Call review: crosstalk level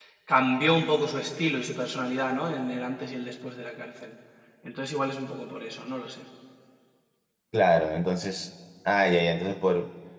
none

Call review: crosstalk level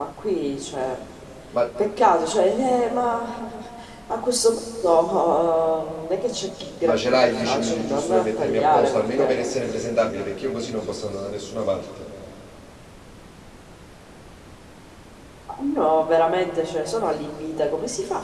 present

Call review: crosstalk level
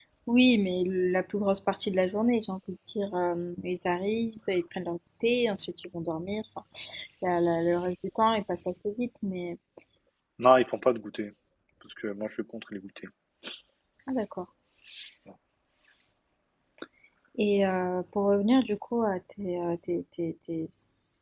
none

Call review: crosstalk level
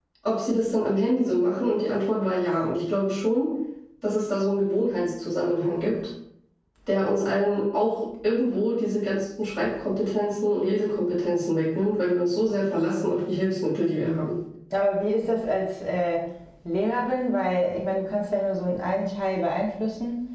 none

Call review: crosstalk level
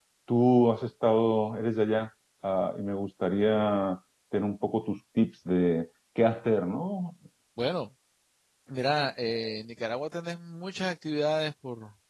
none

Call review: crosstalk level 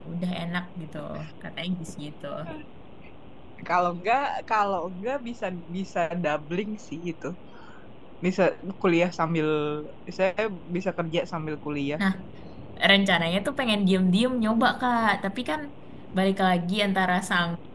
none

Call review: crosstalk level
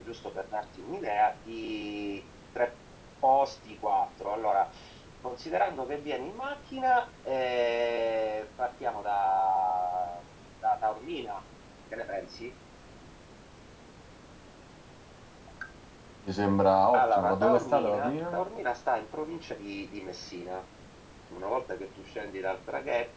present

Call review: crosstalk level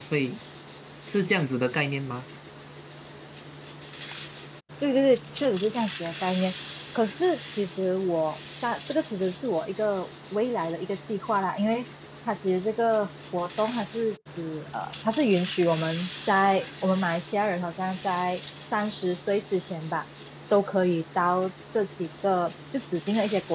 none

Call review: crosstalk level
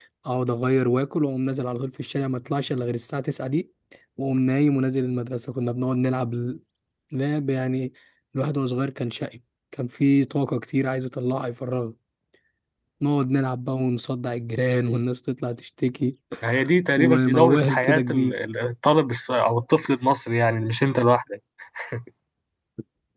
present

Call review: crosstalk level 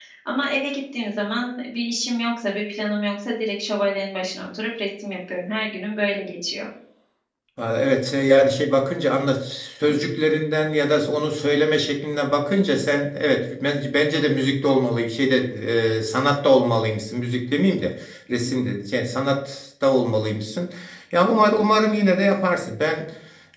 none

